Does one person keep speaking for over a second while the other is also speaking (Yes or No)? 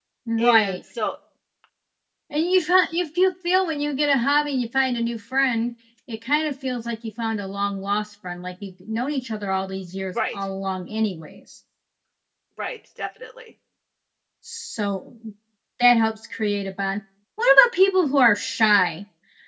No